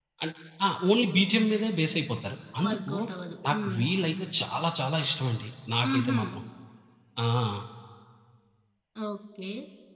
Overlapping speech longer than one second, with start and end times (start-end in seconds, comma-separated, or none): none